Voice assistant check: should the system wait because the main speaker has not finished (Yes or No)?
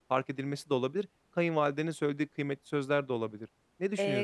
No